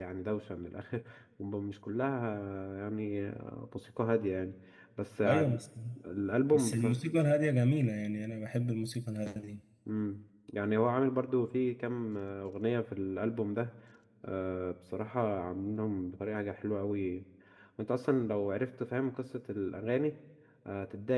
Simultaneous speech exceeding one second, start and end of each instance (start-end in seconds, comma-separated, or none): none